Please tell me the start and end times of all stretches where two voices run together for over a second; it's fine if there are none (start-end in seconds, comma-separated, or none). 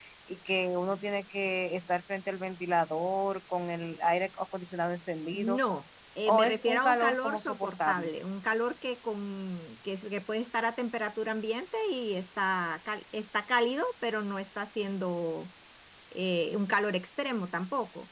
6.3-8.1